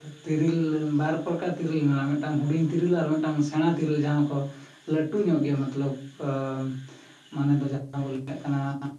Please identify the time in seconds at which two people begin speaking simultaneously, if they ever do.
none

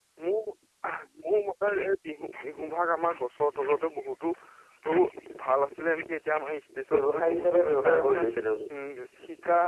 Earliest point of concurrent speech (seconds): 6.9 s

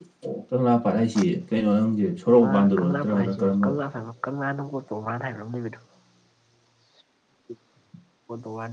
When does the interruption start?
2.3 s

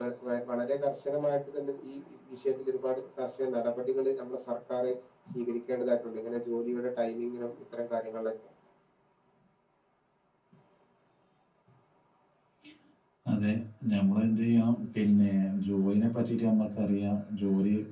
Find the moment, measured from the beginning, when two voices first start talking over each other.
none

